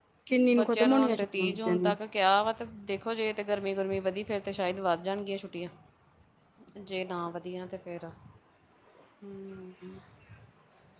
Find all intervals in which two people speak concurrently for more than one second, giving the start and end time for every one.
0.6-1.9

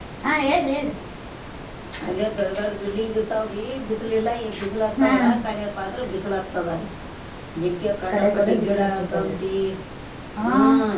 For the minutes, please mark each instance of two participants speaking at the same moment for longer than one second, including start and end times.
8.1-9.4

